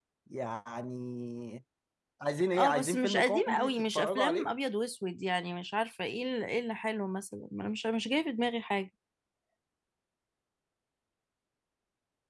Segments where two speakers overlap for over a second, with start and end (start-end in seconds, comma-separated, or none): 2.6-4.5